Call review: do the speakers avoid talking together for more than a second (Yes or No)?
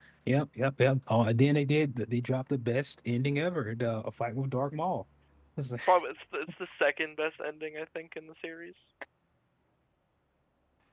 Yes